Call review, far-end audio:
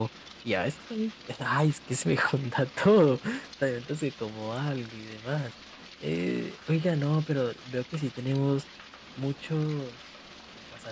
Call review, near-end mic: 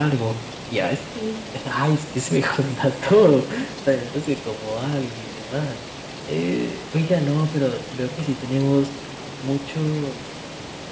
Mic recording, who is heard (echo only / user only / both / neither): echo only